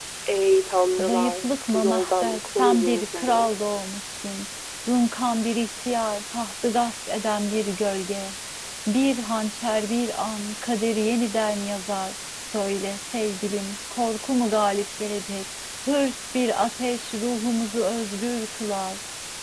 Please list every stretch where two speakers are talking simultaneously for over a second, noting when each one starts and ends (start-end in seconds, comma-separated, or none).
1.0-3.5